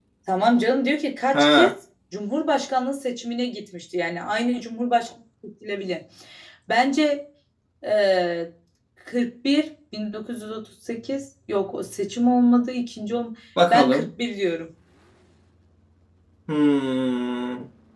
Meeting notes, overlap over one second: none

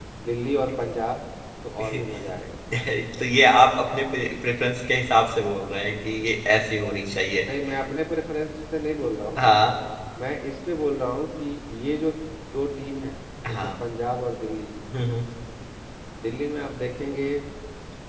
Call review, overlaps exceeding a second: none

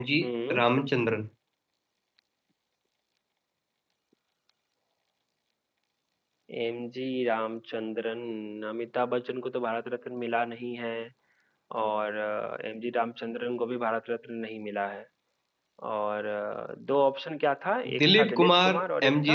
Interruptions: present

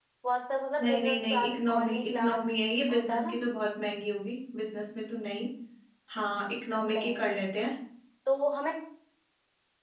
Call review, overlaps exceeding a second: present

